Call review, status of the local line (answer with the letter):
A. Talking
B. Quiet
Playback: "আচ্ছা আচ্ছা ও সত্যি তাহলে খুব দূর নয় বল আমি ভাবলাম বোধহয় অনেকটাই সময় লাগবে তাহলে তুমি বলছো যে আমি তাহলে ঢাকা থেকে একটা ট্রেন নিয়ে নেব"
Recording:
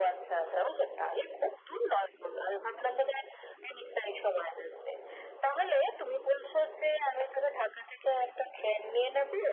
B